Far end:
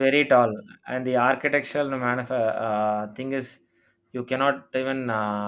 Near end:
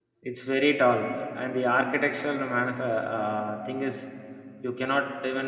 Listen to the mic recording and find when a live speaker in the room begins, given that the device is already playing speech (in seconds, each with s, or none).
none